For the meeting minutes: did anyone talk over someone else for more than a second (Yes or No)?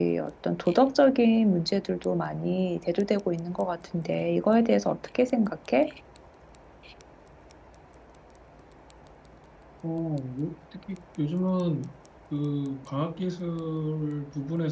No